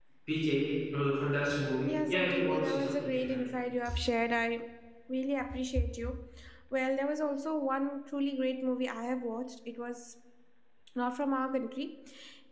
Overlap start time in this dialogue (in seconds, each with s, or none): 1.9 s